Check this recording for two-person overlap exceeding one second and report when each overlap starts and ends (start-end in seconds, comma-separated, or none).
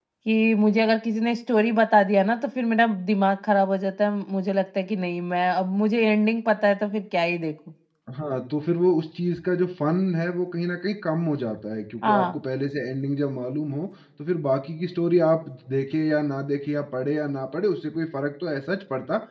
none